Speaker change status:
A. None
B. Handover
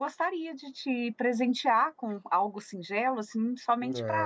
B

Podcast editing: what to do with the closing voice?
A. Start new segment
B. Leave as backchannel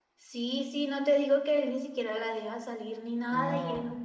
B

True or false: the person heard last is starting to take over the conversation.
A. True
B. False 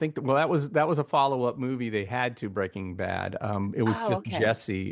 B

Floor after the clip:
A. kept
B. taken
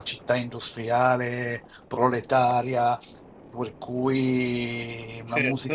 B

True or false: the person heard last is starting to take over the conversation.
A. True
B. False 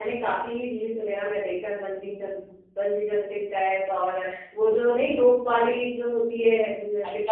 A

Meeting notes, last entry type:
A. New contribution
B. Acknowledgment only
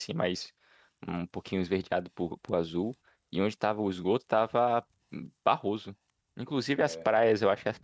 B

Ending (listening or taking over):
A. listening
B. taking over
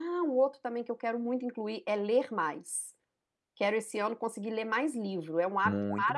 B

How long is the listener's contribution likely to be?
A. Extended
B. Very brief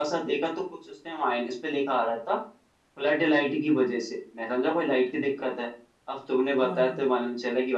B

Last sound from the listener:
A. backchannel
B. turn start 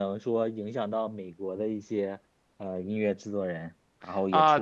B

